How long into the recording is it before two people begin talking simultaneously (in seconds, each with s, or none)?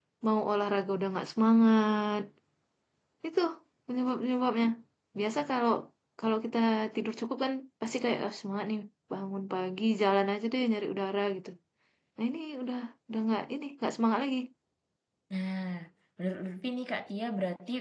none